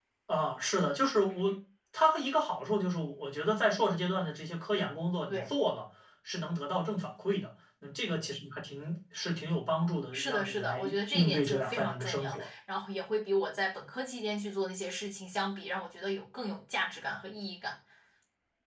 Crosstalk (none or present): present